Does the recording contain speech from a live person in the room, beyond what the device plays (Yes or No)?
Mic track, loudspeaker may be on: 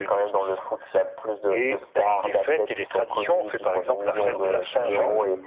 Yes